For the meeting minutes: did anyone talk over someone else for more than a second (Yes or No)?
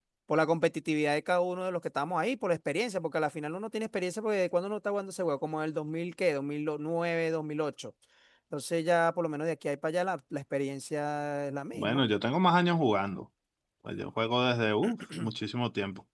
No